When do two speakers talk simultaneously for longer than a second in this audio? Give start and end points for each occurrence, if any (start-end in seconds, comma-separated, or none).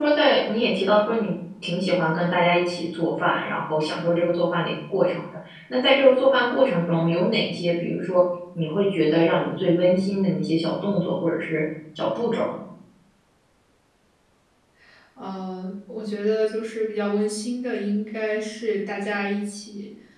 none